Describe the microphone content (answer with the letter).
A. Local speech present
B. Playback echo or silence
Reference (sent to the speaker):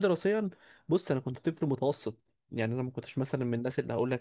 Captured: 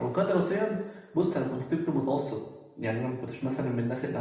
B